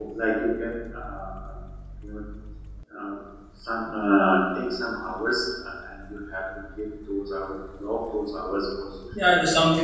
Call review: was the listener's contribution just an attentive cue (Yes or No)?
No